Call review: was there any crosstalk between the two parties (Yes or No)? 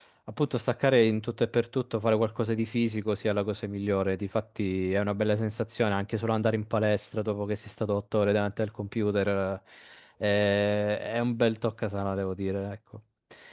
No